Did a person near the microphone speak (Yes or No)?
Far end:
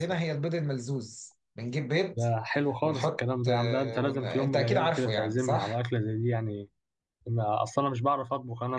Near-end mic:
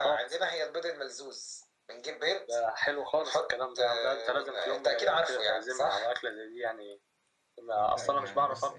Yes